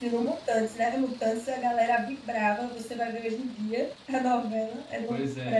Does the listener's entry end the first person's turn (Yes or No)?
Yes